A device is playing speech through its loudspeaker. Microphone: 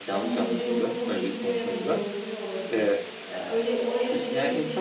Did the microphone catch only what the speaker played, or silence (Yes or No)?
No